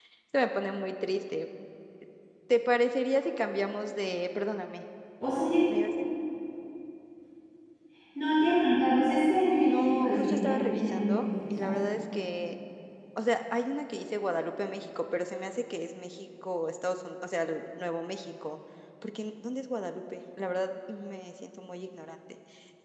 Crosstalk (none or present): present